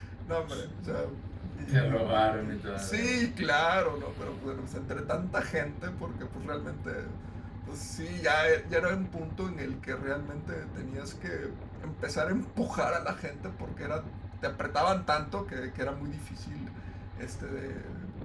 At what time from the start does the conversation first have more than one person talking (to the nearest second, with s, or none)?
2 s